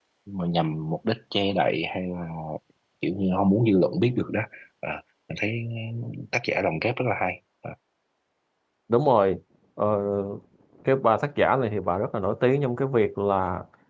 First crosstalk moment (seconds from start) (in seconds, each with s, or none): none